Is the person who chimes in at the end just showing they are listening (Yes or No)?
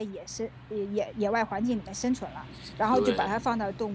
Yes